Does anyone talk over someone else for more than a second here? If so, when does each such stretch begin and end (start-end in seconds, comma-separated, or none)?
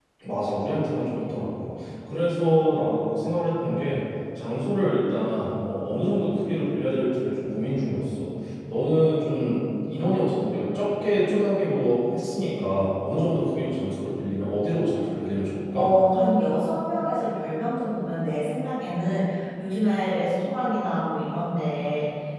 none